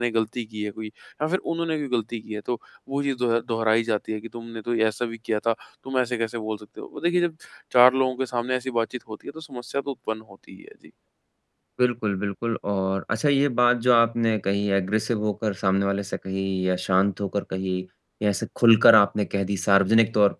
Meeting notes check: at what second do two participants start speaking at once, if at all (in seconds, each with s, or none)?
none